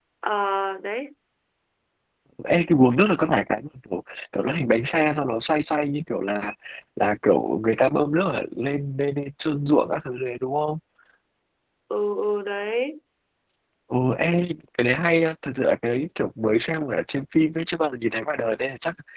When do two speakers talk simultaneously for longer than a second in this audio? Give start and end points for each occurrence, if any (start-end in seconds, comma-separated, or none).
none